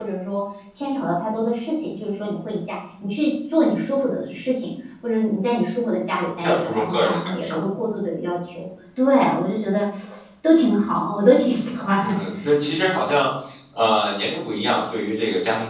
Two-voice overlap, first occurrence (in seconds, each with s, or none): 6.4 s